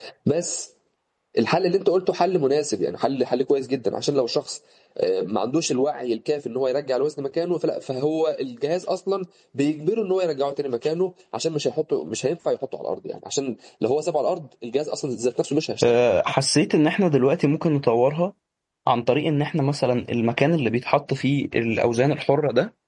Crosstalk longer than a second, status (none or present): none